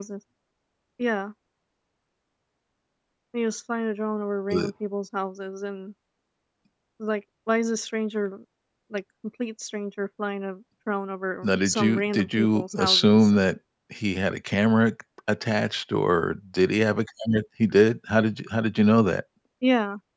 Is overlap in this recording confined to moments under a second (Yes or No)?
No